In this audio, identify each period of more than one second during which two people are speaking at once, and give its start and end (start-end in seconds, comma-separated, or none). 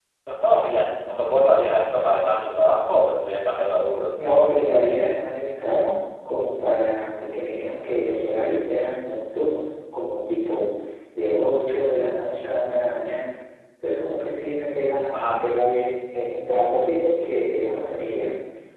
none